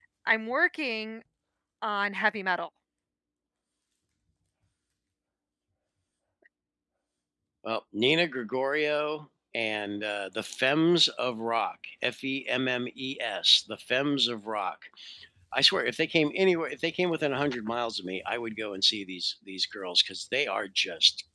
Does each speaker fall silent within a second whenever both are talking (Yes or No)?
Yes